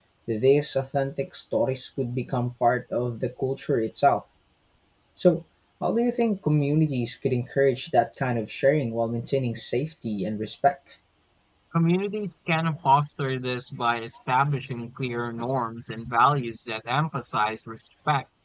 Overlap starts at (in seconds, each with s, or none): none